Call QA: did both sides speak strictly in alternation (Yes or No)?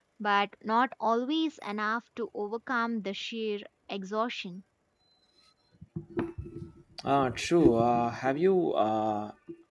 Yes